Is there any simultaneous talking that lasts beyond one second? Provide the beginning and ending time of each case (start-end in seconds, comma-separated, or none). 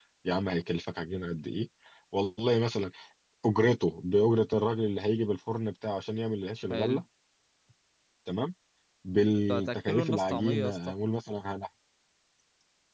9.5-10.9